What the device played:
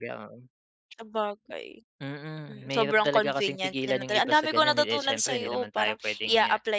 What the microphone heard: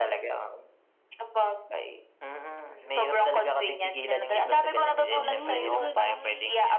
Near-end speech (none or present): present